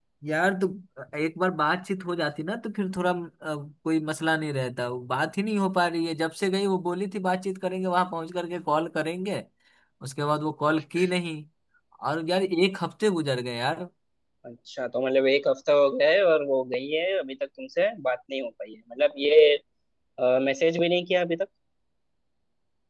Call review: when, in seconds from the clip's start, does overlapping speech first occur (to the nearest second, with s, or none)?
none